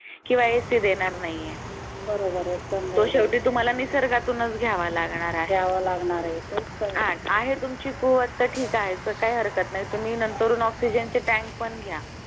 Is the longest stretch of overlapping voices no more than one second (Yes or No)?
Yes